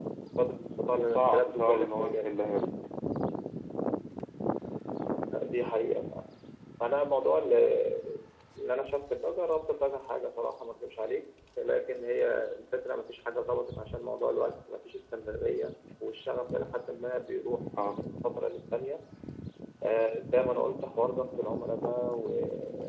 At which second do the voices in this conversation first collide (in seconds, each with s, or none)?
1.1 s